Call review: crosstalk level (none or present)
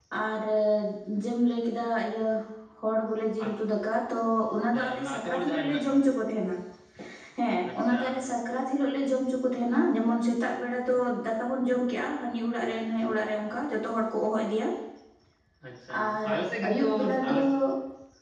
present